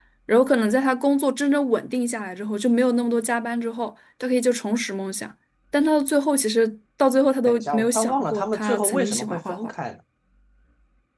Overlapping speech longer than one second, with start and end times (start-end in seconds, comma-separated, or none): 7.4-9.7